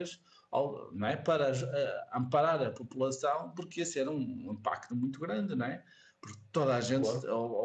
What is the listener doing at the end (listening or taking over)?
listening